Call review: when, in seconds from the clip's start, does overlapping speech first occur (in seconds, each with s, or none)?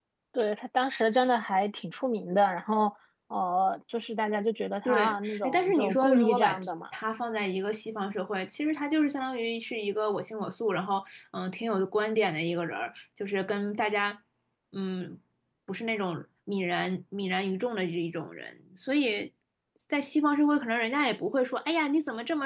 4.8 s